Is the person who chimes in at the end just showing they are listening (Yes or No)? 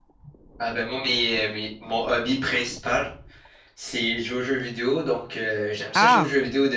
Yes